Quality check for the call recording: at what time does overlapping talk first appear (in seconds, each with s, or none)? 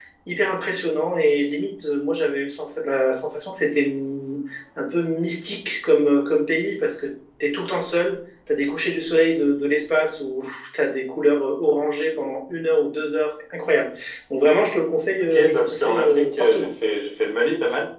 15.2 s